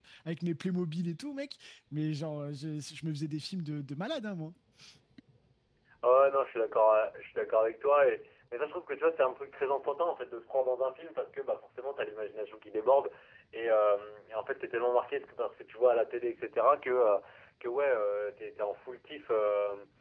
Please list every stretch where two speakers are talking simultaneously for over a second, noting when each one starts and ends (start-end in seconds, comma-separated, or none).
none